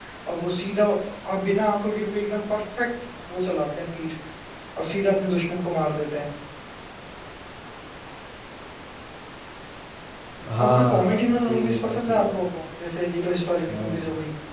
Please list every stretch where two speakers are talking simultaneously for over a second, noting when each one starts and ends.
10.6-12.5

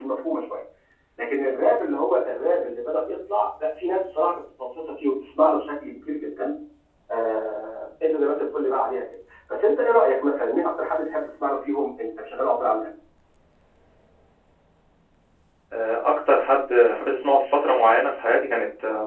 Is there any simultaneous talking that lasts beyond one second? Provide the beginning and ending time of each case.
none

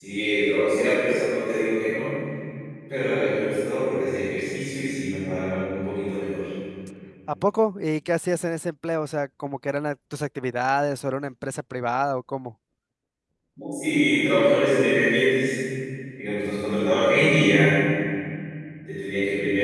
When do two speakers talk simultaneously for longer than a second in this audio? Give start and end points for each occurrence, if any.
none

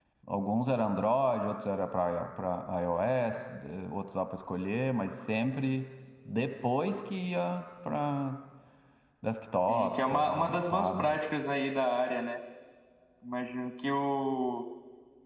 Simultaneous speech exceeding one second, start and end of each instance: 9.7-11.2

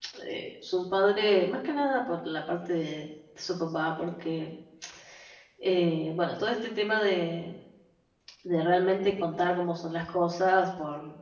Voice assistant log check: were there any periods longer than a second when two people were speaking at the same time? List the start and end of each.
none

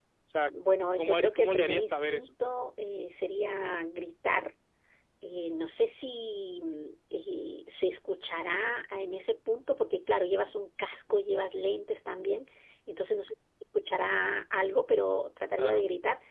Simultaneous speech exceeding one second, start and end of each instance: 1.0-2.3

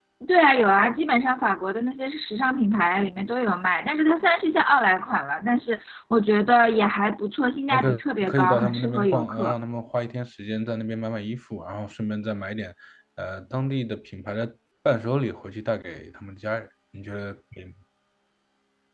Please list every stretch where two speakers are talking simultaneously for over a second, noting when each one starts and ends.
7.7-9.5

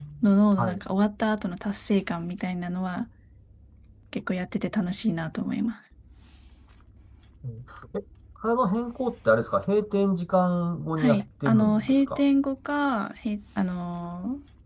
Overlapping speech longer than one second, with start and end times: 11.0-12.2

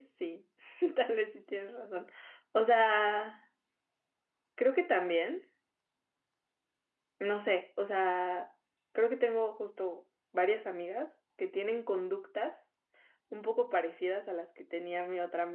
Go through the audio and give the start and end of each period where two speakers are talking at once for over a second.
none

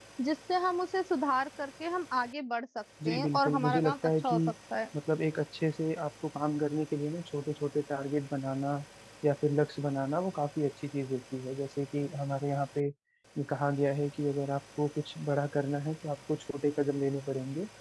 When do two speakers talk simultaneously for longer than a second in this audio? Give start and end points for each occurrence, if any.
3.0-4.4

